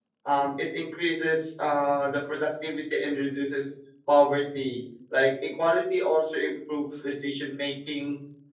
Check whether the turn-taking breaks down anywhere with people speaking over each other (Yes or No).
No